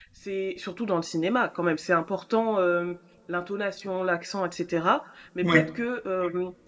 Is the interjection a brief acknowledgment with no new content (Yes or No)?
Yes